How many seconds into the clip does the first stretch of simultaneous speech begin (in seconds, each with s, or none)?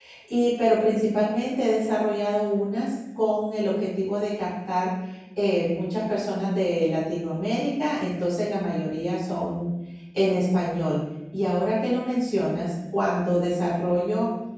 none